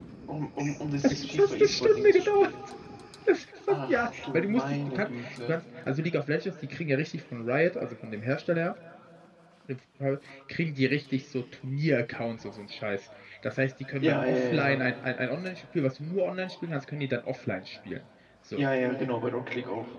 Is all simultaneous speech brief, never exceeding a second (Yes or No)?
No